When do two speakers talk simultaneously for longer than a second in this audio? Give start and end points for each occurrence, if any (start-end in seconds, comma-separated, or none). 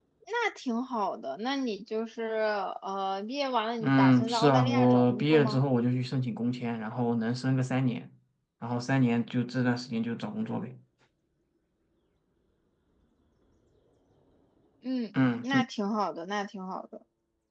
3.8-5.6